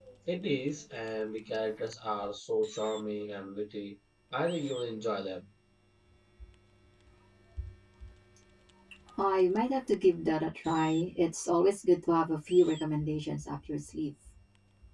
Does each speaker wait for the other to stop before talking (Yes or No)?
Yes